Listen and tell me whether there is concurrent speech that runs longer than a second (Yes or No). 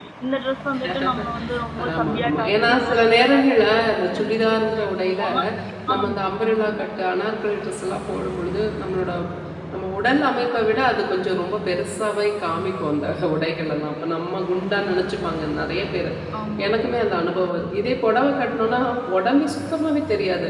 Yes